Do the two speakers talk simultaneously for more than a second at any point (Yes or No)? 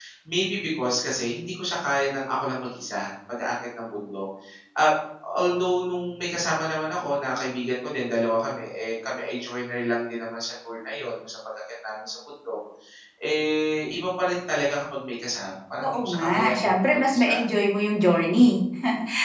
Yes